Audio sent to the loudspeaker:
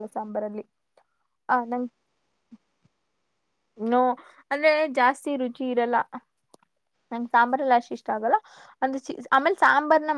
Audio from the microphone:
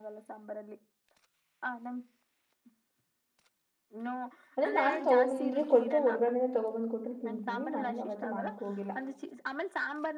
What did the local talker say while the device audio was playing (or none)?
ಅಂದೆ ನಾನ್ ತಗೊ ಬಂದ್ರ ಕೊಟ್ರೆ ಹೊರ್ಗಡ ತಗೊ ಬಂದ್ ಕೊಟ್ರಿ ತಿಂತೀನಿ ಮನೇಲಿ ಯಾವತ್ತು ಮಾಡೋಕ ಹೋಗಿಲ್ಲ.